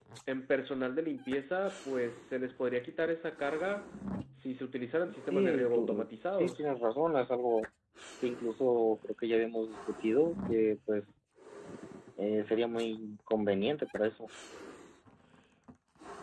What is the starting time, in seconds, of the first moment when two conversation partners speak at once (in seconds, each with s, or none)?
5.3 s